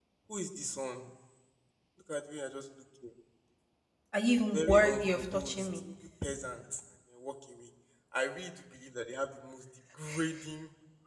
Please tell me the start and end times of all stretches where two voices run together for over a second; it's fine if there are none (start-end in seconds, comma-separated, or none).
4.5-5.7